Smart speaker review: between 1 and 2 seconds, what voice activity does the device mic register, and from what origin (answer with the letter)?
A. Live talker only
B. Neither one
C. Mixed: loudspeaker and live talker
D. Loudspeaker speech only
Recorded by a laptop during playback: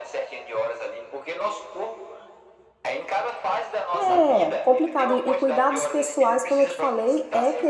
D